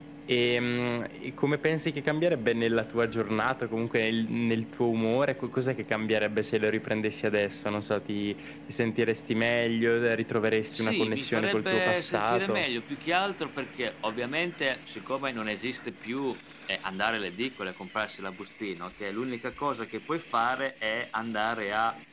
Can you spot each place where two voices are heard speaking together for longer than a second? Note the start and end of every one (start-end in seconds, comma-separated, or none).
10.7-12.6